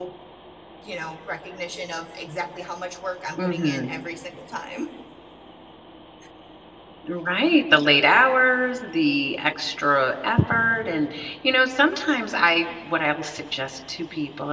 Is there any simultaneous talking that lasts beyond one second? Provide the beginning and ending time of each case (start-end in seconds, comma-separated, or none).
none